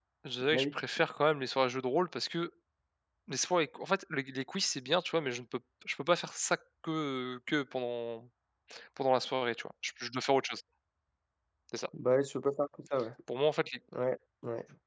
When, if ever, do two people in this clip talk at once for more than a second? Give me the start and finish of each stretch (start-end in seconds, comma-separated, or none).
none